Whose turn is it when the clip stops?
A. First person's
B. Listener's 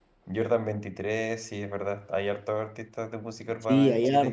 B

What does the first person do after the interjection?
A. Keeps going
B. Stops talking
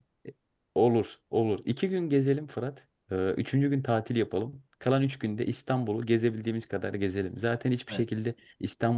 A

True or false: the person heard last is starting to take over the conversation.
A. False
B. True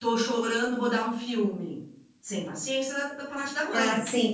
B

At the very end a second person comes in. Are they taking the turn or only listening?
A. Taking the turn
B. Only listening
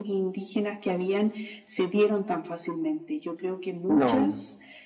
B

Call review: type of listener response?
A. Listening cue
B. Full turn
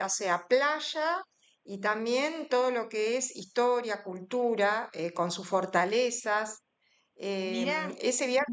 A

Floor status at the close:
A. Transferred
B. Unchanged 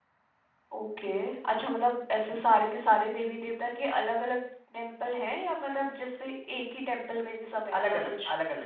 A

